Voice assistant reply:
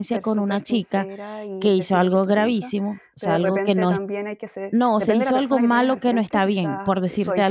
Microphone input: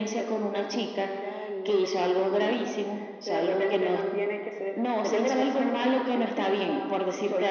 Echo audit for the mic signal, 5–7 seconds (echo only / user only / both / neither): echo only